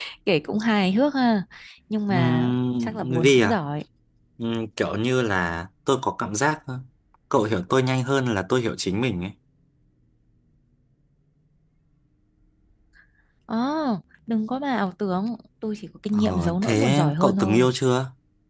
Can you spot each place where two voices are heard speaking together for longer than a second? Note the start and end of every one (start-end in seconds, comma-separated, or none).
2.1-3.6, 16.1-17.7